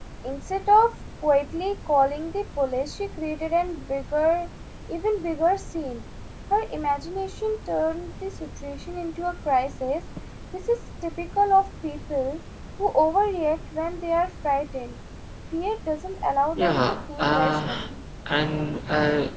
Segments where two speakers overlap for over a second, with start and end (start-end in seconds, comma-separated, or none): 16.6-17.9